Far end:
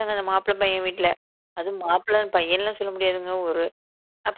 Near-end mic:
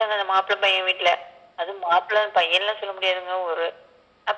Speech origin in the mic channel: echo only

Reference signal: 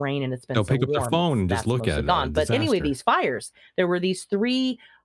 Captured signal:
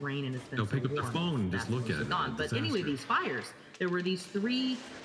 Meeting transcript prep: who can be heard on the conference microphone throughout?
echo only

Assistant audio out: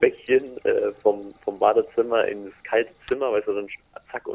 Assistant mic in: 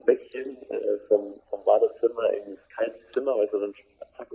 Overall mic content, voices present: echo only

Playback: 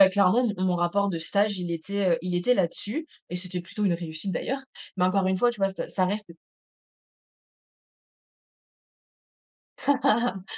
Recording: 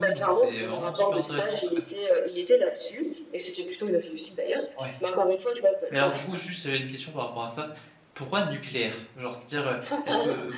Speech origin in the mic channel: both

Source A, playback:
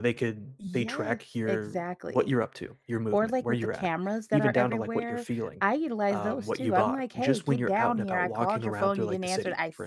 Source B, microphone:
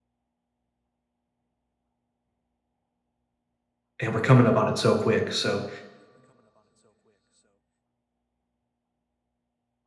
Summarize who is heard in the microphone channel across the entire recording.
user only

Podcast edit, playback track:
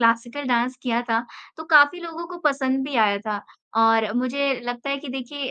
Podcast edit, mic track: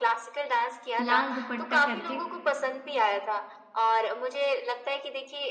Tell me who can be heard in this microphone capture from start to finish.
both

